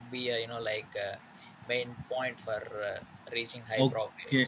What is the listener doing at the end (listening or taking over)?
taking over